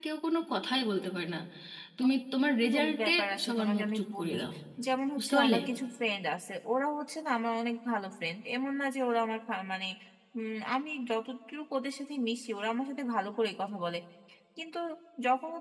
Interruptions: present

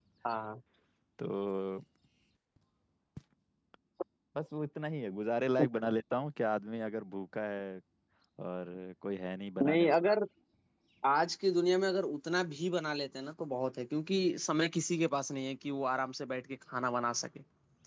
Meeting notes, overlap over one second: none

